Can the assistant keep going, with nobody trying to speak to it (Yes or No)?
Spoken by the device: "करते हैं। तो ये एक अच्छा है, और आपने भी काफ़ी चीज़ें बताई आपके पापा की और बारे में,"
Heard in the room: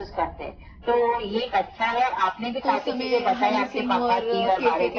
No